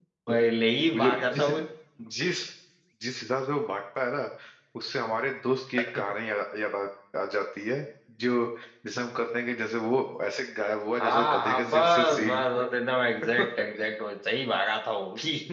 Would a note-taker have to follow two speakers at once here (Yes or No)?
Yes